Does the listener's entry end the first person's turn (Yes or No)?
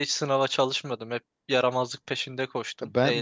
Yes